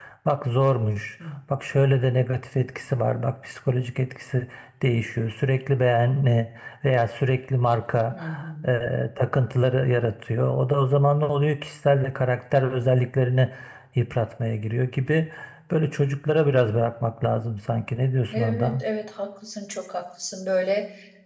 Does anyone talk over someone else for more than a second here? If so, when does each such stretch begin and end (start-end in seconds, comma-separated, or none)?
none